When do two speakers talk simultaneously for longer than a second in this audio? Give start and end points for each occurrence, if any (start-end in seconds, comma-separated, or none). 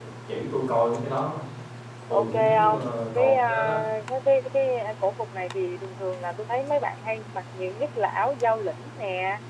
2.1-3.8